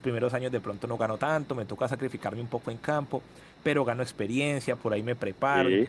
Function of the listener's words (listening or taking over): listening